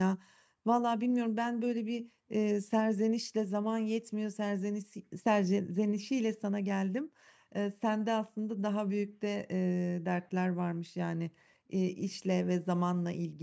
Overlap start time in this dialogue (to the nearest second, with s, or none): none